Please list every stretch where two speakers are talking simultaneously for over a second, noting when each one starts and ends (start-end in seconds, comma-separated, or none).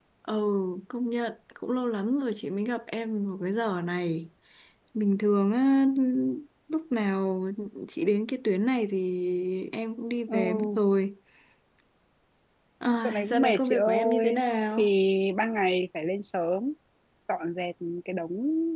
13.0-14.4